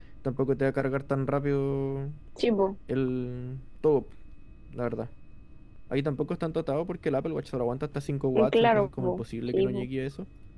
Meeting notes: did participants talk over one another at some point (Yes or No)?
Yes